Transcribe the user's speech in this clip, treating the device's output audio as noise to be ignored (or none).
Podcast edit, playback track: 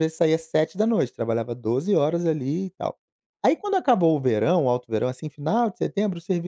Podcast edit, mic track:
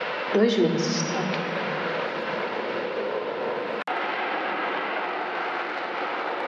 2 meses, ok.